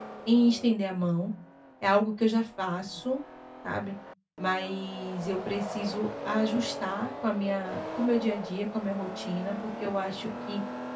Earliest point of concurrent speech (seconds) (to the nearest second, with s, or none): none